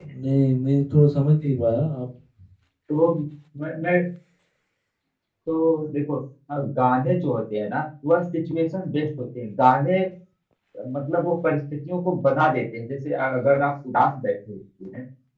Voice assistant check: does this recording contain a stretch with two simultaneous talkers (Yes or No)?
No